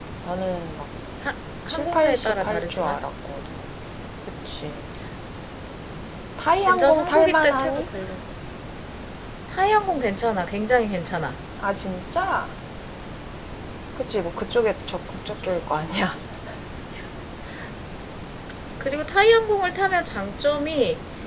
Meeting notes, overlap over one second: present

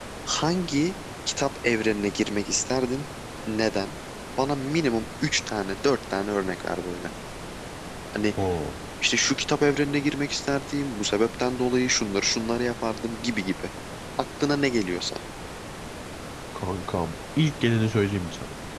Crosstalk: none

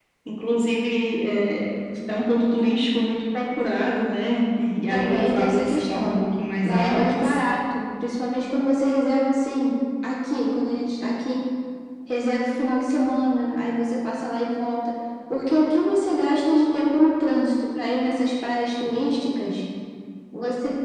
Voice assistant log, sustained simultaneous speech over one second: present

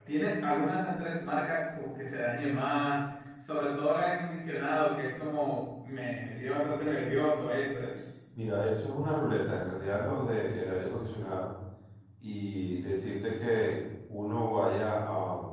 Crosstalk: none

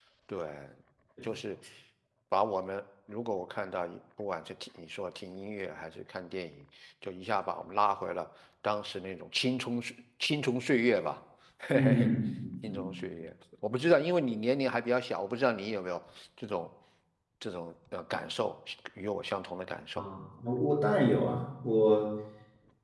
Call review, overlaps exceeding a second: none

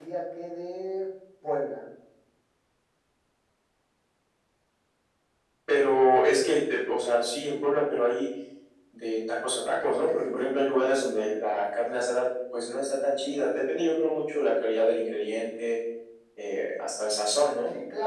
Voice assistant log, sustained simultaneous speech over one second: none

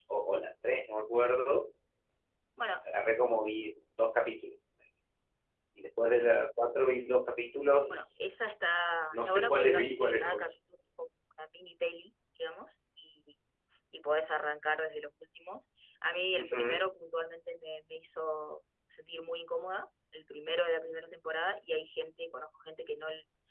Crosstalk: present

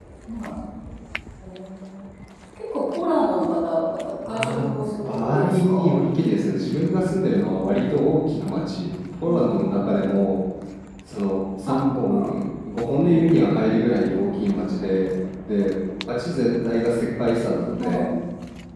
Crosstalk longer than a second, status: present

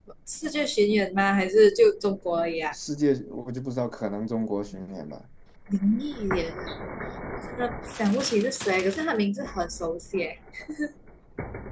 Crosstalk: none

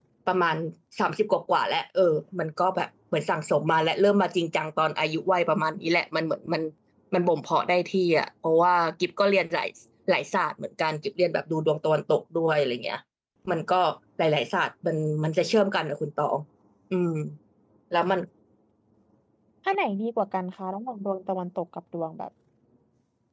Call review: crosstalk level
none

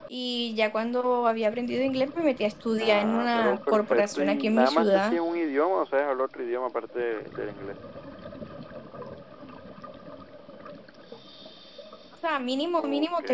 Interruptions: present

